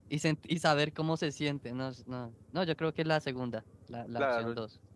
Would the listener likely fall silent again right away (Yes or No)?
No